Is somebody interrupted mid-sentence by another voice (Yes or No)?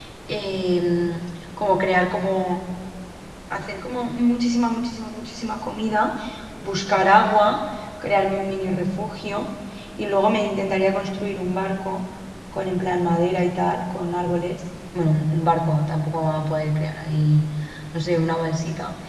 No